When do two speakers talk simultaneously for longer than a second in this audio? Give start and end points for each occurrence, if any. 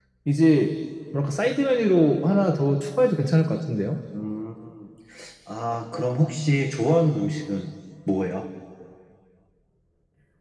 none

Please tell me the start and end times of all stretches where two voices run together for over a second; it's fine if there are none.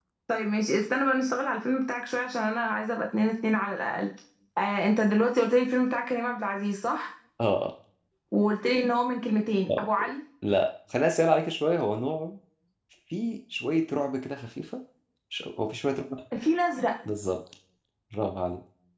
none

